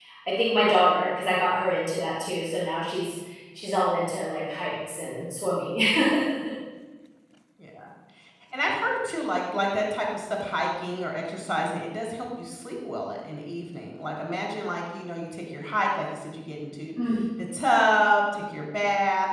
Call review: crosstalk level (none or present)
none